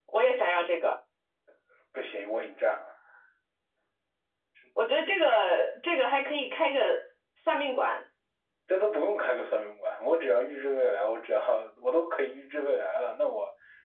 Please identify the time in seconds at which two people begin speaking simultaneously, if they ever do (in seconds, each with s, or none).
none